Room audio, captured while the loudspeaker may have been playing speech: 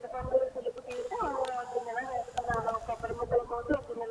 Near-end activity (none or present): none